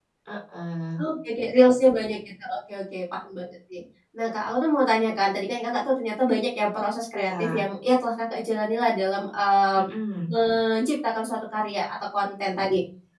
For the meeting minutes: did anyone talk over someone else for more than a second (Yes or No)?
No